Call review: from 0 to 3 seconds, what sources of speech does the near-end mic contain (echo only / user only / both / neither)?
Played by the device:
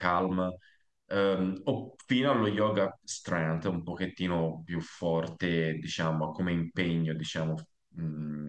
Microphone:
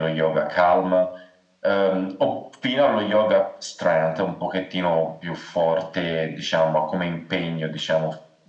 echo only